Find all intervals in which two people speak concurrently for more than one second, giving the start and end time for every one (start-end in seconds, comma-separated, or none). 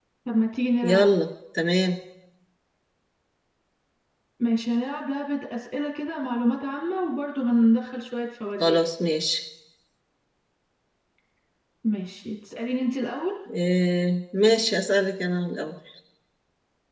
none